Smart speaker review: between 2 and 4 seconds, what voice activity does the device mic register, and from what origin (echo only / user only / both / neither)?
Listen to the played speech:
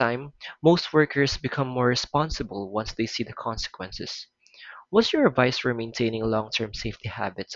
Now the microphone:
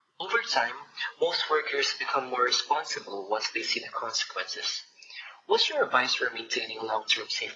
echo only